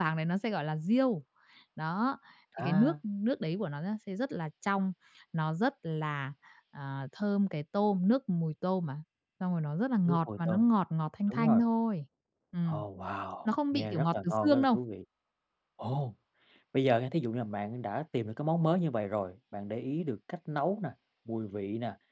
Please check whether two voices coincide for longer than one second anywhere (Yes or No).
Yes